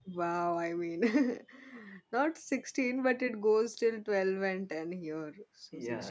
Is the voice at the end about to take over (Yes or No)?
Yes